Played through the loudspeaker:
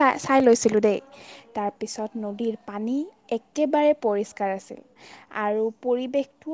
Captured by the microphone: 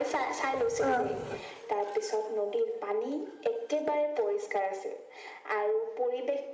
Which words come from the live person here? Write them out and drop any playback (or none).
বাকীবোৰো